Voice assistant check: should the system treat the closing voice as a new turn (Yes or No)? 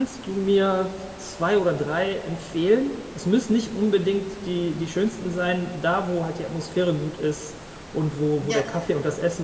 No